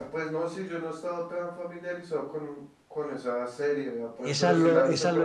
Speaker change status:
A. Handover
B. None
A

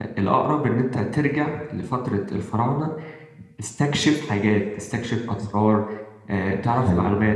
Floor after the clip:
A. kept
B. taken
B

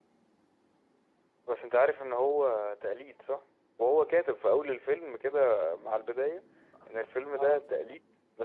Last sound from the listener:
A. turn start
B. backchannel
B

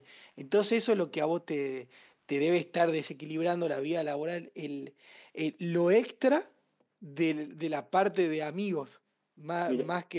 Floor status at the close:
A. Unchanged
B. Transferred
A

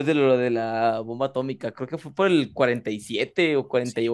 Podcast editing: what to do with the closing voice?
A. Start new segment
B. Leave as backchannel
A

